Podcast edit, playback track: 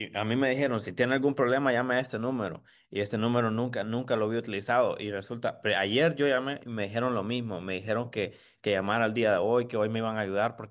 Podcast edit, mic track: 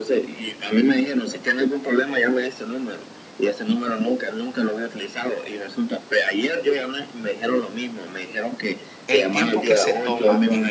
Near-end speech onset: 9 s

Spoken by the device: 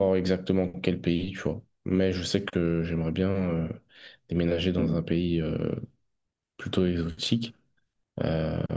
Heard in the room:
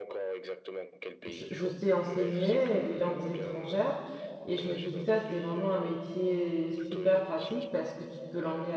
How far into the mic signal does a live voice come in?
1 s

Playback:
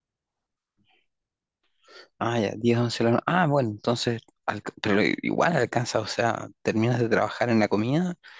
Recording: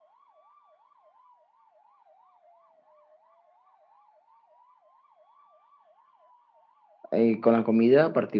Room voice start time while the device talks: 7 s

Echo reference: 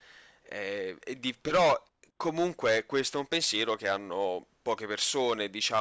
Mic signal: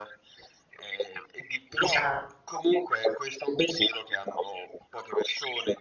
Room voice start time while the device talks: 2 s

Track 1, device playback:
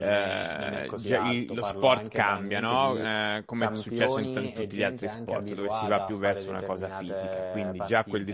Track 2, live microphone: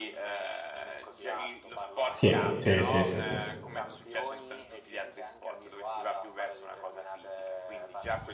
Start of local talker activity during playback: 2 s

